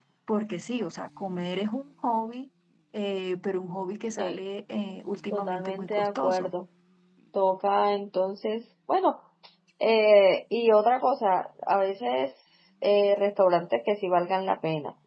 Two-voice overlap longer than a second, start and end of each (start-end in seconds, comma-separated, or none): 5.3-6.5